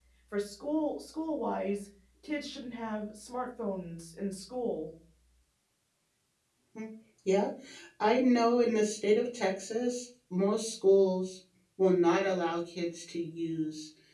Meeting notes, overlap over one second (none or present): none